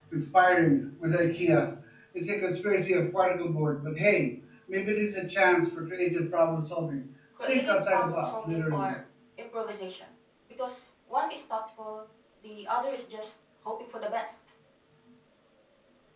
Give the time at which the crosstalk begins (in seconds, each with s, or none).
7.5 s